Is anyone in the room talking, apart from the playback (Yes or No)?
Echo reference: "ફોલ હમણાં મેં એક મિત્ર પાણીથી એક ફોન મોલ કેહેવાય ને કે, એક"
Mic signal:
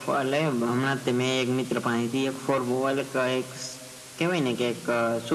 No